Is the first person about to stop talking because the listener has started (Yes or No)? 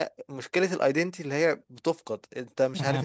Yes